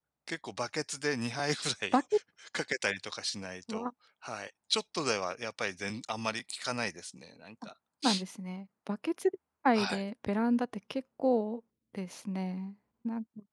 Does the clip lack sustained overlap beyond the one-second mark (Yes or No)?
Yes